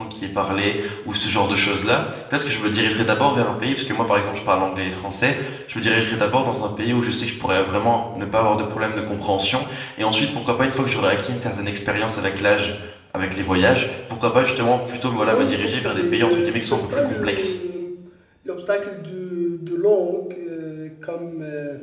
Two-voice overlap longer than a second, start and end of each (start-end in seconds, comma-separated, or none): 15.3-17.6